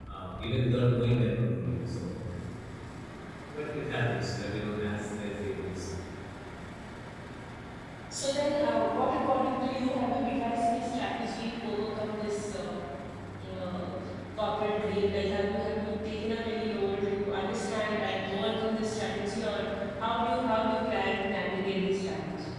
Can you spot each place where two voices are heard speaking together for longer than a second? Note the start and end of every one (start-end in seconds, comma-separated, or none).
none